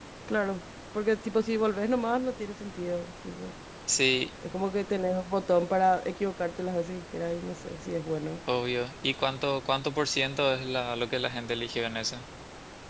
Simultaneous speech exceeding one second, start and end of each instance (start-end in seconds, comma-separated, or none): none